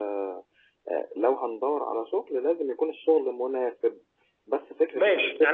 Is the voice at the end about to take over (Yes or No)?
Yes